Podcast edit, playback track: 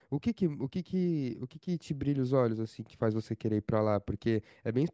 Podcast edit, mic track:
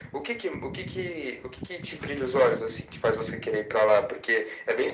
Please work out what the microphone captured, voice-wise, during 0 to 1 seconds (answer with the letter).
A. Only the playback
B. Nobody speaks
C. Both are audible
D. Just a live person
A